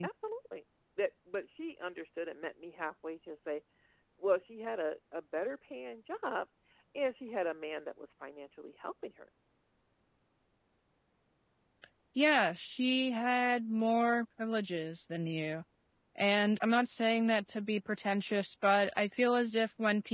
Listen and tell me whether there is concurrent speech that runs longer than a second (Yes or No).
No